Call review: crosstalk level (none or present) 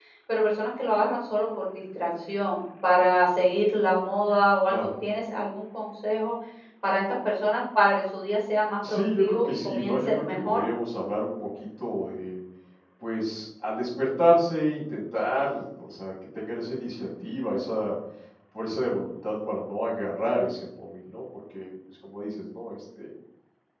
present